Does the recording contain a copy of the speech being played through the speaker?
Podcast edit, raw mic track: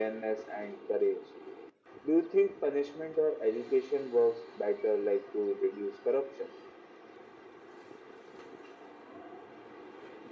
Yes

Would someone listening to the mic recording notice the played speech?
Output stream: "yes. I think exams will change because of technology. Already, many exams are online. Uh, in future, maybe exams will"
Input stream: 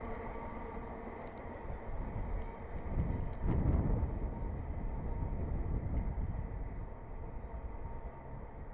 No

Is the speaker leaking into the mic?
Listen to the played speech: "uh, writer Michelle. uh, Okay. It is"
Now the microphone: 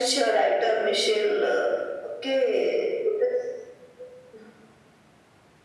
Yes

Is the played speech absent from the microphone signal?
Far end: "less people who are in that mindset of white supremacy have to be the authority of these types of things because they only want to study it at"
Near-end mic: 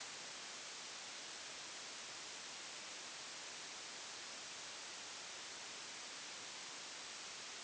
Yes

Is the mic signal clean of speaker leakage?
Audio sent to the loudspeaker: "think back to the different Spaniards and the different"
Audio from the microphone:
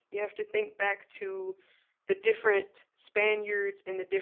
No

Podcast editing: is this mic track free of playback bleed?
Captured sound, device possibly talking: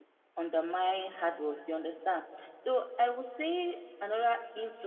Yes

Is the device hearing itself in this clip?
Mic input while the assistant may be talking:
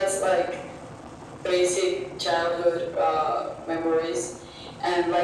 Yes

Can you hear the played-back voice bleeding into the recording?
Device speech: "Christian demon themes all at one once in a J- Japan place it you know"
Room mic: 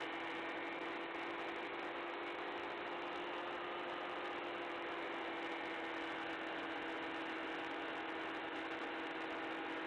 No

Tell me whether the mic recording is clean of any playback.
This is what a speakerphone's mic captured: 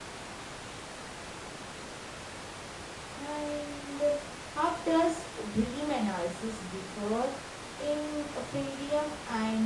Yes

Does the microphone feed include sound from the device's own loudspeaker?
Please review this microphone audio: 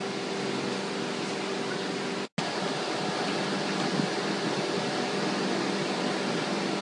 No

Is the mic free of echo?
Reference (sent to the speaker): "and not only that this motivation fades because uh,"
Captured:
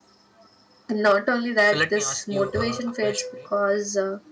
No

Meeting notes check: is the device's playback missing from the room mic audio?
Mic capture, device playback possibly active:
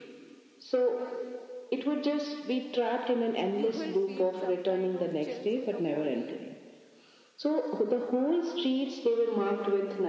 No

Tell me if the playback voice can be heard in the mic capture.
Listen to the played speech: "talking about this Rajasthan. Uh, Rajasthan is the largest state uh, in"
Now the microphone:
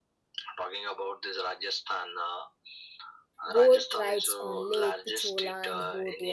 Yes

